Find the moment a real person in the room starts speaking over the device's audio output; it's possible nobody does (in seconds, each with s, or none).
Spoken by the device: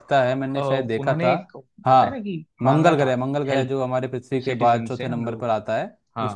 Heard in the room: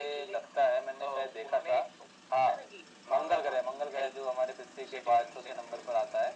none